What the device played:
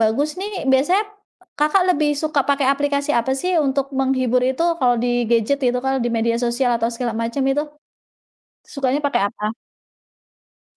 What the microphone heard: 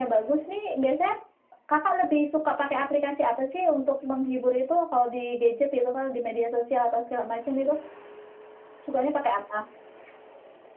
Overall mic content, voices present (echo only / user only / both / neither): echo only